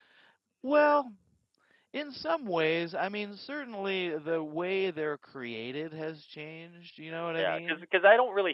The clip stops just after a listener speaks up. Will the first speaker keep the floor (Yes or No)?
No